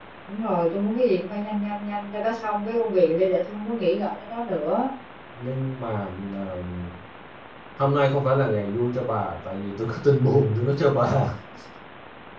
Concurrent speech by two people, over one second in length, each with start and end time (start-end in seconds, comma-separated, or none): none